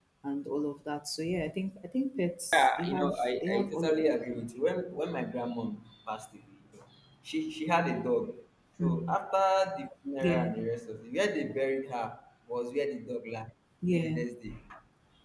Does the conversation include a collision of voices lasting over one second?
Yes, from 2.5 s

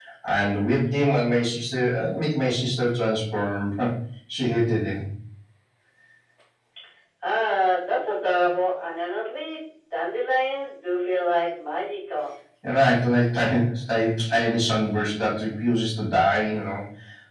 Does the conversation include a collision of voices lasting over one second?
No

